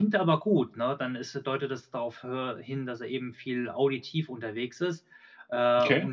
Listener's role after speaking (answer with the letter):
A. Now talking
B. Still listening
B